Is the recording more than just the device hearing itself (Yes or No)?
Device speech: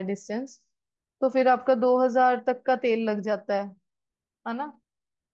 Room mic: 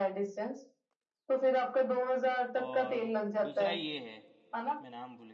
Yes